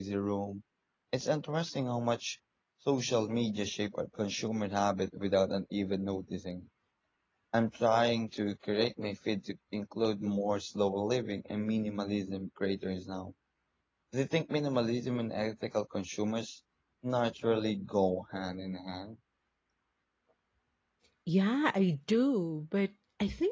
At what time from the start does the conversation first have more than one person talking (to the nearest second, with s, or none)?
none